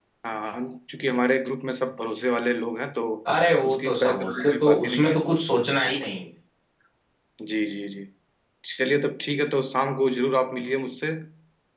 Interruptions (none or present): present